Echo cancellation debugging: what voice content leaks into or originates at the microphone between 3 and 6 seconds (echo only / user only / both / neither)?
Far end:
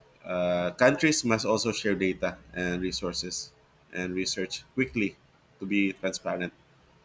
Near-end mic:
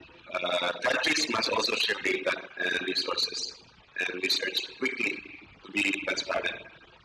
echo only